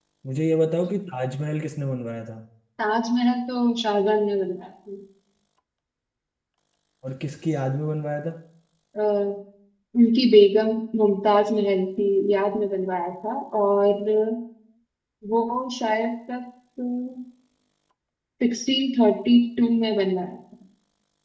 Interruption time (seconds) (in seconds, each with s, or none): none